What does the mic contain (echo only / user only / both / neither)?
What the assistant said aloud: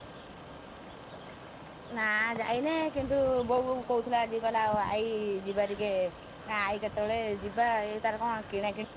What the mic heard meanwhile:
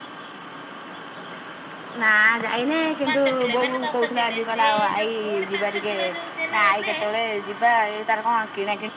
both